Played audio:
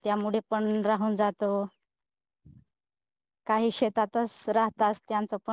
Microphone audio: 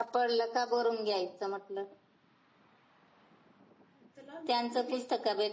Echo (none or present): none